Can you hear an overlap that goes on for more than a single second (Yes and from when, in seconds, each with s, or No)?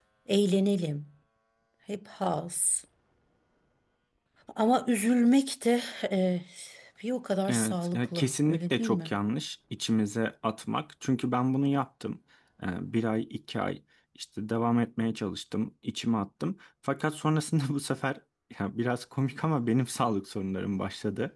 Yes, from 7.5 s